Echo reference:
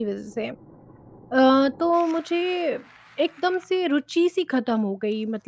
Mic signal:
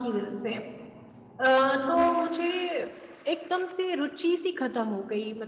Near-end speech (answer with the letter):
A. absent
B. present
A